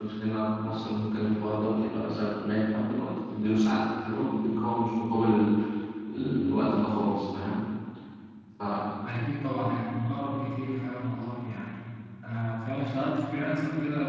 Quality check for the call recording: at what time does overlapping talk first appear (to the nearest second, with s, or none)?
none